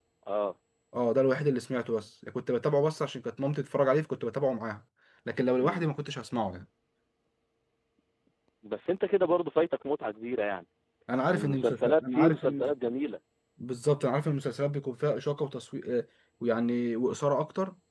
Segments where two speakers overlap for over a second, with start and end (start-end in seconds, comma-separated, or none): 11.3-12.7